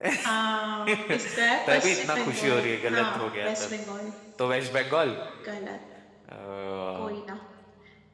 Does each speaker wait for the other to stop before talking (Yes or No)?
No